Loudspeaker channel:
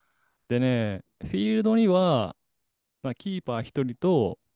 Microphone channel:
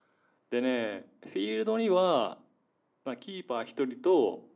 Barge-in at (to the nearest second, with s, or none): none